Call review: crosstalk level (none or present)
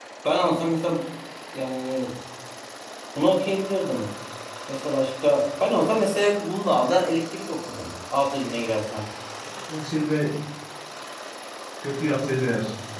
none